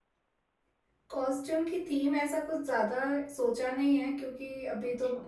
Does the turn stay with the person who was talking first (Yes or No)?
Yes